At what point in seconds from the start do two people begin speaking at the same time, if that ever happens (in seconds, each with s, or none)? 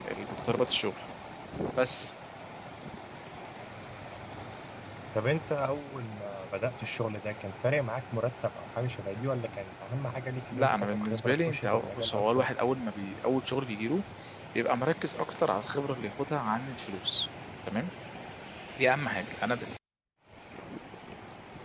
10.5 s